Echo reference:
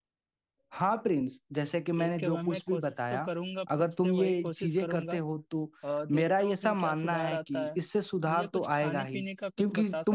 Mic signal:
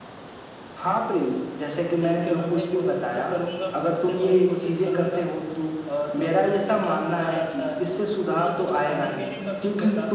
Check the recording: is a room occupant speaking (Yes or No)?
No